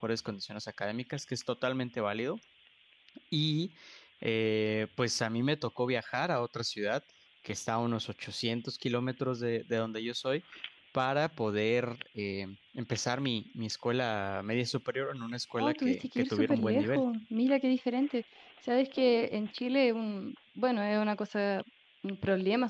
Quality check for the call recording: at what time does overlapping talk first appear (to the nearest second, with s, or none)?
16 s